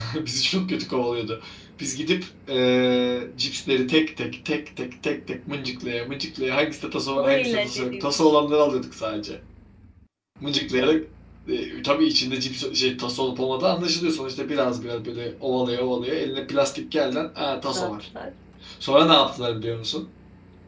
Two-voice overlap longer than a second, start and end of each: 7.2-8.3

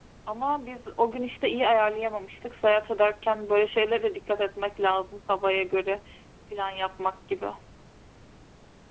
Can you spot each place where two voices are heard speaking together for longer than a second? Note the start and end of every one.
none

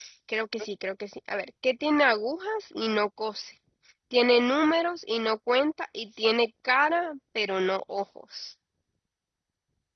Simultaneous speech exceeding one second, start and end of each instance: none

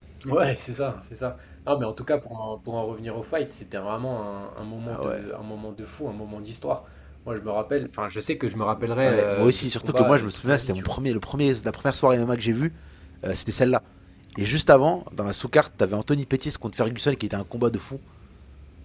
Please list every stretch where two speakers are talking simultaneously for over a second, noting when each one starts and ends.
9.0-11.0

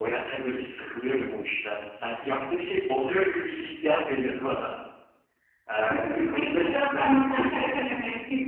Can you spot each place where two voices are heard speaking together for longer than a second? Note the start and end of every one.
5.8-7.9

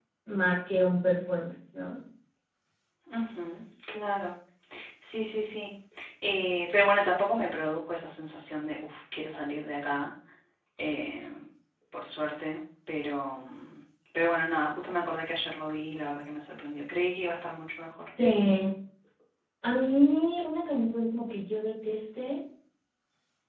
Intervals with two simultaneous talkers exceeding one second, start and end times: none

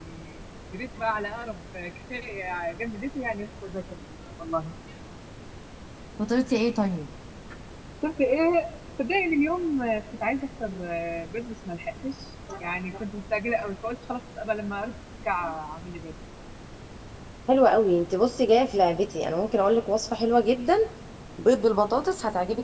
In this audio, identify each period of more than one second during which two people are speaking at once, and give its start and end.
none

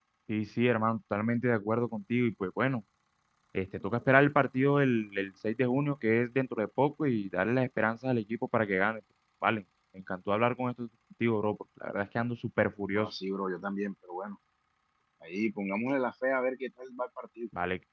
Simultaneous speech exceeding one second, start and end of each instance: none

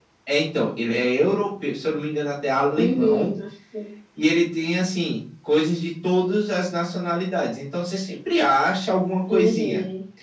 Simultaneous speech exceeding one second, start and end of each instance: none

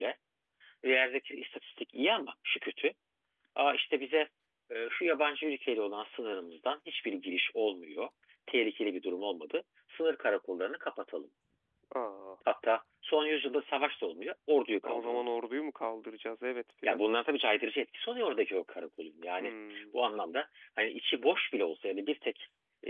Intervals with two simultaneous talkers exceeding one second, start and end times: none

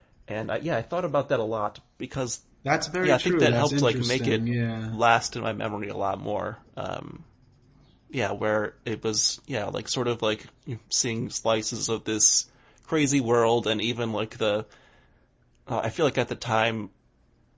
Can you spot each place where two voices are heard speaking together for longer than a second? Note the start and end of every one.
3.0-4.4

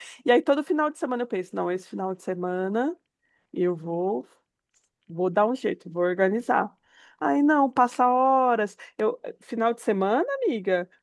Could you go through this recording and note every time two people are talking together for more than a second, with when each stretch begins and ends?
none

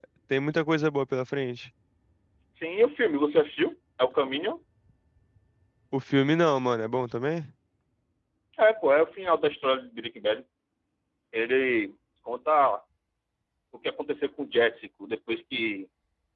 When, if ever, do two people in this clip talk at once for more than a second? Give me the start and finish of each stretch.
none

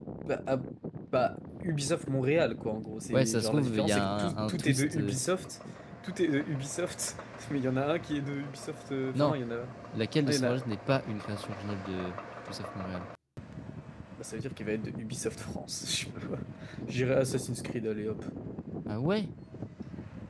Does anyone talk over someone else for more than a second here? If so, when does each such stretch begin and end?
3.1-5.2

